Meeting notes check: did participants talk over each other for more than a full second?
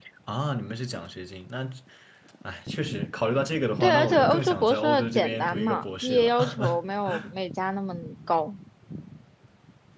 Yes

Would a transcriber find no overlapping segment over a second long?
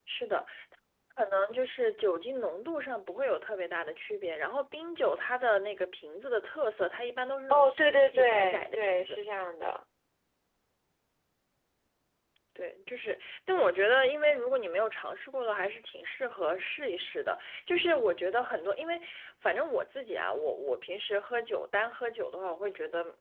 No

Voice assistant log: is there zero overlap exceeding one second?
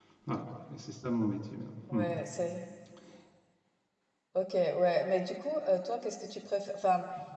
Yes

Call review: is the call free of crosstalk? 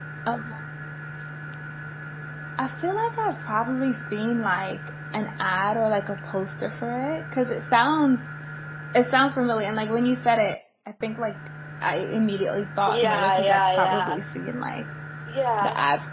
No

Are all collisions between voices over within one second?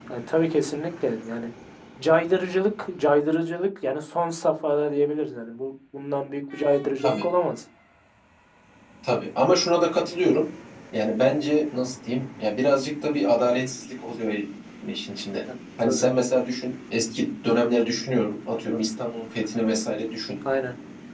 Yes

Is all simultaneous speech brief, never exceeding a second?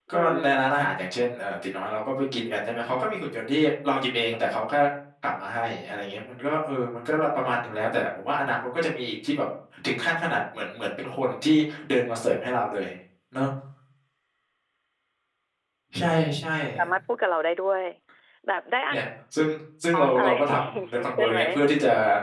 No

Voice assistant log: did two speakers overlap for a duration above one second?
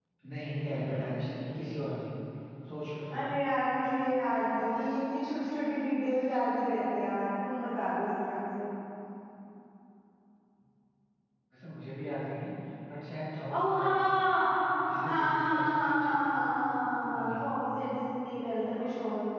Yes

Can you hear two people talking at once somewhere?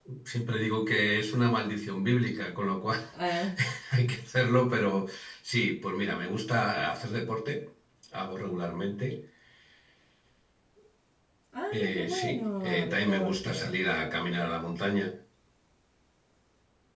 Yes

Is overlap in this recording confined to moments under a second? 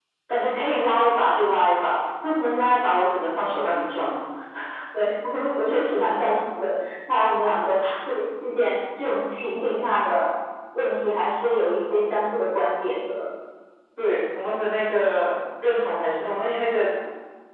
Yes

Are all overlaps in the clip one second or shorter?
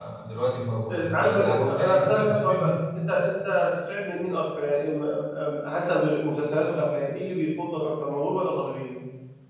No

